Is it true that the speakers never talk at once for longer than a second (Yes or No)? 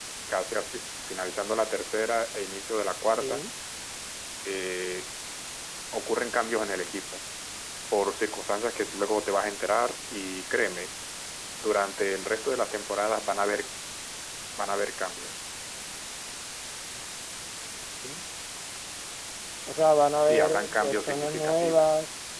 No